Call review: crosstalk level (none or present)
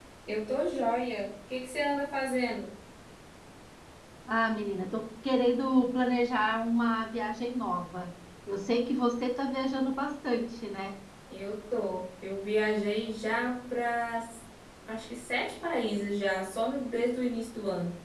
none